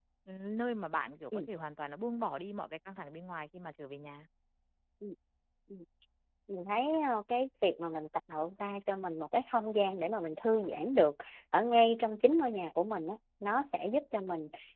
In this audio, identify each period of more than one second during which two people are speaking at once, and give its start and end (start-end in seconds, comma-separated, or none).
none